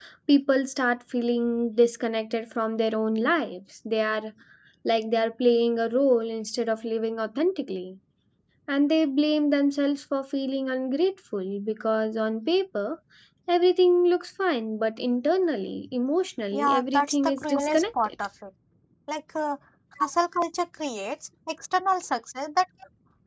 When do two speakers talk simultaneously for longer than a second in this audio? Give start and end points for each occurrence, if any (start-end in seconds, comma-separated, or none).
16.5-18.1